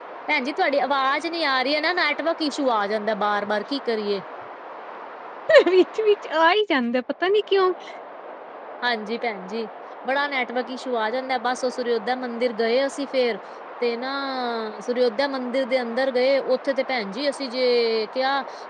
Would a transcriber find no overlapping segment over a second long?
Yes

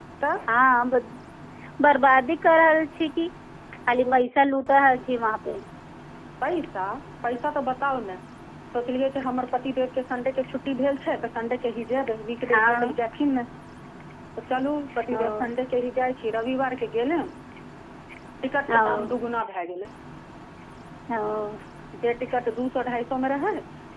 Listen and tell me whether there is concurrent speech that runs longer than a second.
No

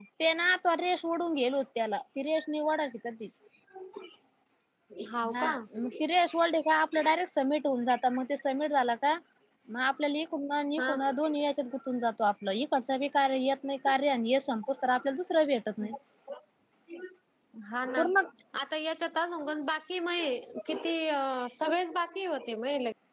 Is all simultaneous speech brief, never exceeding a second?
Yes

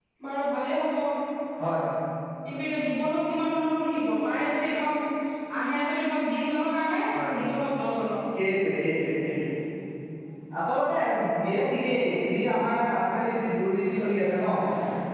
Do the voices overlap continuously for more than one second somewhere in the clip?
No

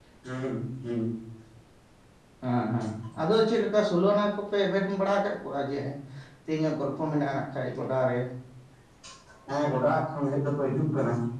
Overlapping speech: No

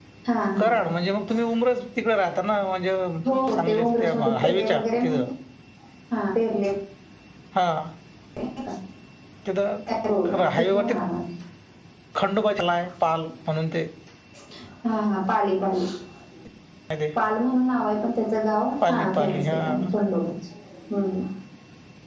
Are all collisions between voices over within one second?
No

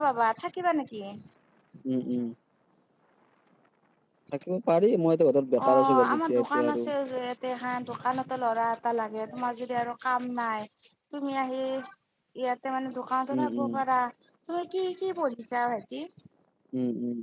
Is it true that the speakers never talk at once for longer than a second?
No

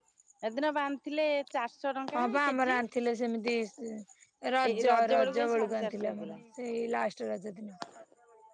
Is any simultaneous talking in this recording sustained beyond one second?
Yes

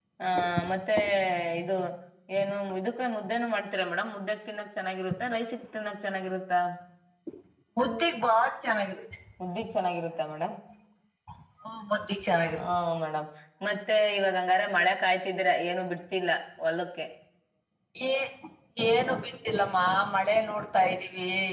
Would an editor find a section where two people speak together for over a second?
No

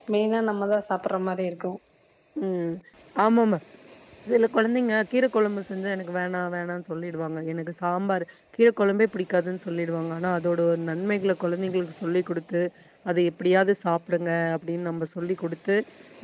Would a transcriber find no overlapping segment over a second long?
Yes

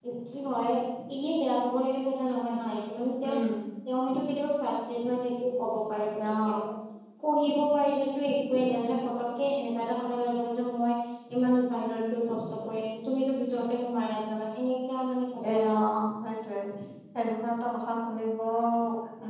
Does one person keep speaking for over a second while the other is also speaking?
No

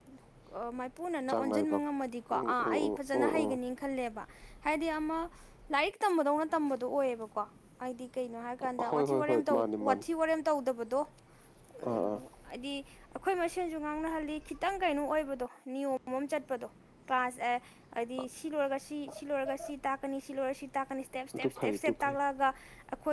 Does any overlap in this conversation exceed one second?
Yes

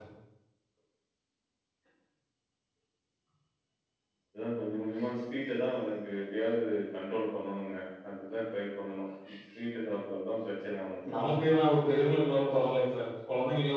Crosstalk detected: No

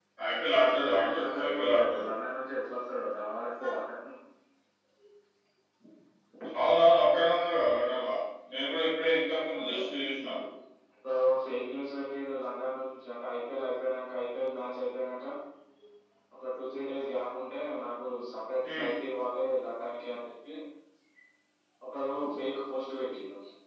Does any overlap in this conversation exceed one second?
Yes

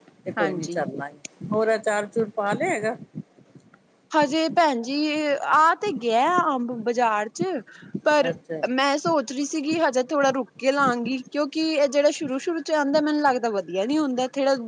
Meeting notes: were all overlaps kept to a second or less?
Yes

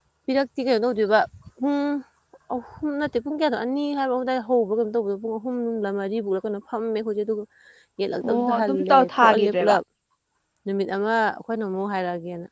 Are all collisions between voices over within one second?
No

